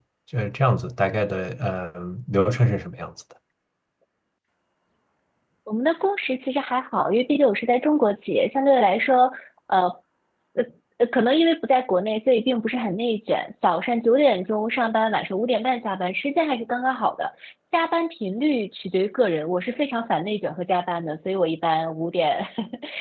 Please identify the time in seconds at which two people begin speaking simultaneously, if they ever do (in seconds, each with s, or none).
none